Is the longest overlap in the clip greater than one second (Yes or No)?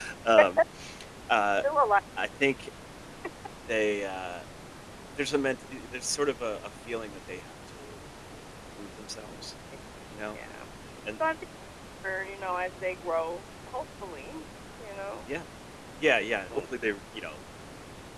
No